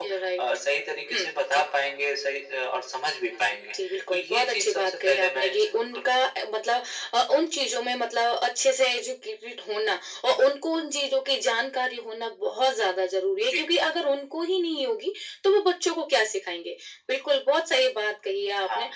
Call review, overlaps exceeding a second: present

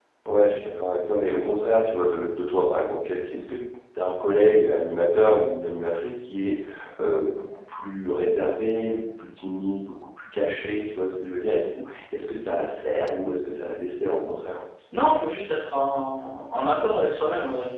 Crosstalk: none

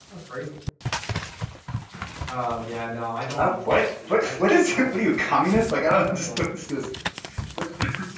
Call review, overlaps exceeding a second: present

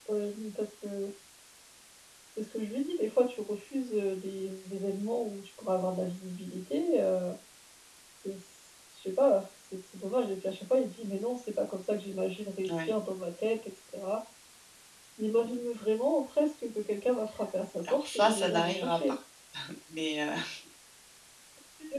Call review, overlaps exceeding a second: present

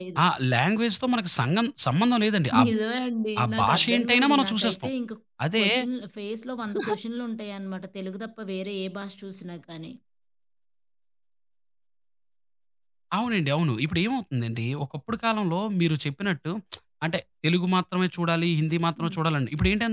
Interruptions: present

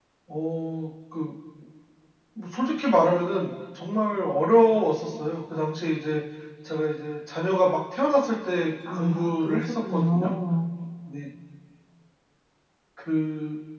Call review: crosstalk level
present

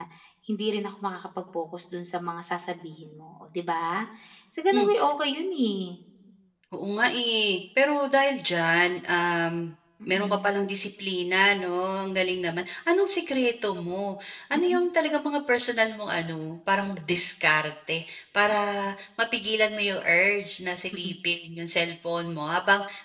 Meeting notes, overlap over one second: none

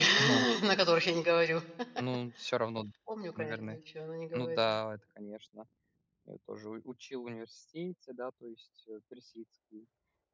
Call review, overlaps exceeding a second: none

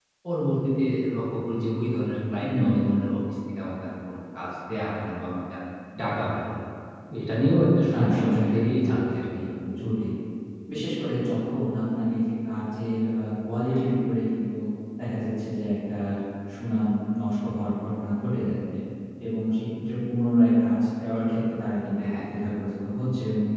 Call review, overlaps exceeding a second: present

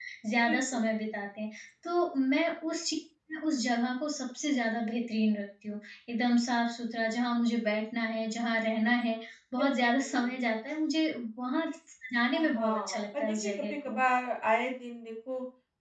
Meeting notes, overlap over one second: present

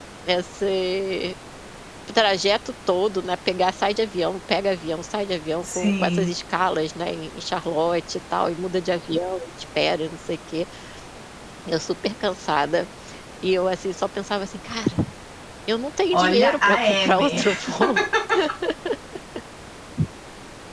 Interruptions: present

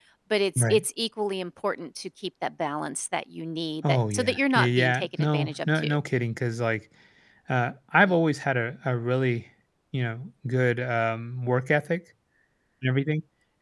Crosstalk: present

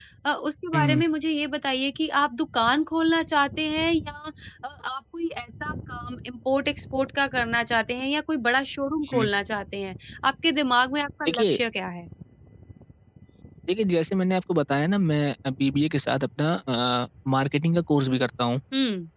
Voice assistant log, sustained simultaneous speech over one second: none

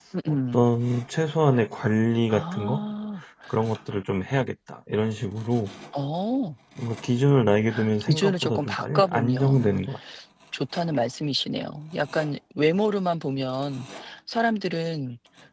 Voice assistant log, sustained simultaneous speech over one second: present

